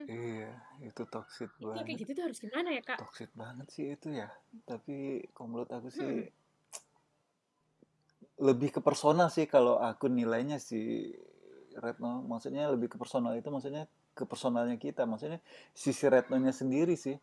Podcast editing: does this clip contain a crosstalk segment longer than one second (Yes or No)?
No